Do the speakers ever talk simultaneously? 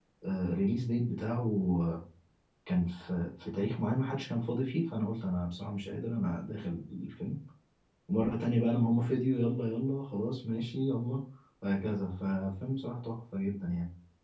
No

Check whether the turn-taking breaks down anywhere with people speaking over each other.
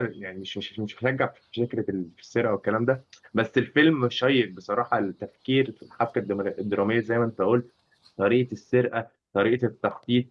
No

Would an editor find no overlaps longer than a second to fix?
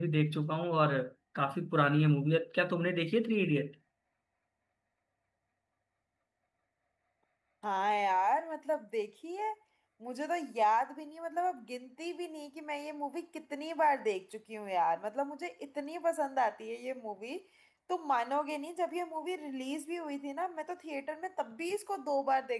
Yes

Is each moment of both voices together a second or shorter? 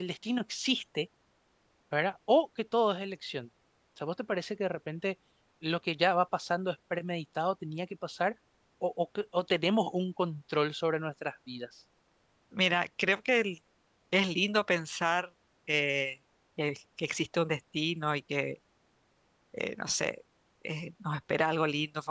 Yes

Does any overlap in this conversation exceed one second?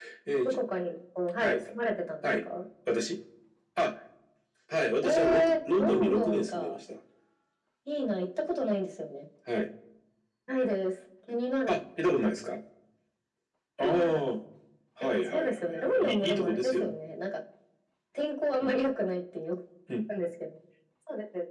Yes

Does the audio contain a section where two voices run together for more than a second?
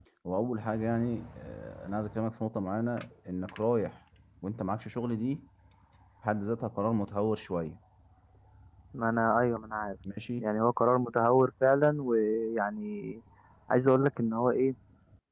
No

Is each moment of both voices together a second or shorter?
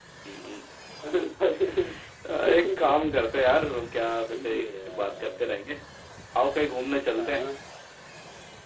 No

